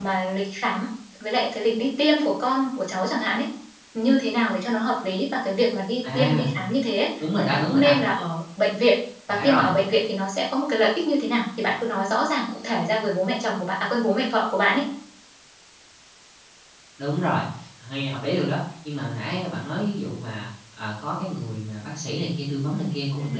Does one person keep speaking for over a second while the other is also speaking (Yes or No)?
No